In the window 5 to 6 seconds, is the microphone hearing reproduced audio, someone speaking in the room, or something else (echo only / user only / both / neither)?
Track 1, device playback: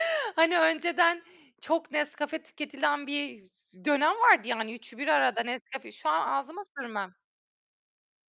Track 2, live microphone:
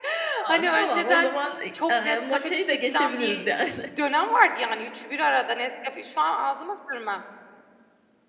echo only